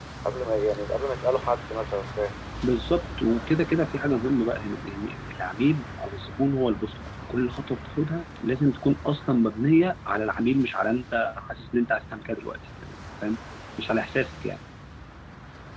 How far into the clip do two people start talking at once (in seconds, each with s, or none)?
none